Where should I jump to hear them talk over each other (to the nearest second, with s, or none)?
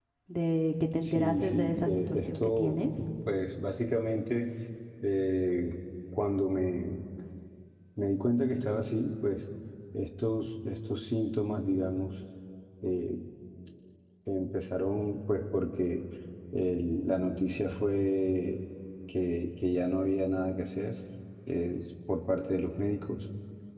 1 s